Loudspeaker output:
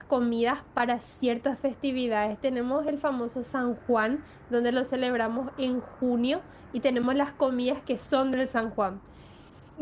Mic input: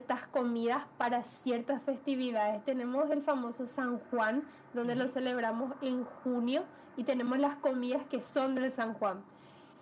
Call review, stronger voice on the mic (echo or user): echo